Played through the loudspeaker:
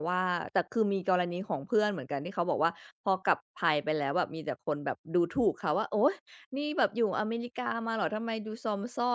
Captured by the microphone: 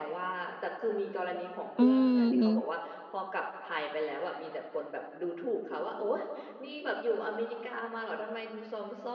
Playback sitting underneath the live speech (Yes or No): Yes